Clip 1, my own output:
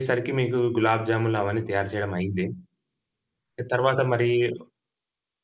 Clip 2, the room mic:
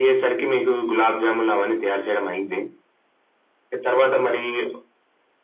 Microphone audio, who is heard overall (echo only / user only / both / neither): echo only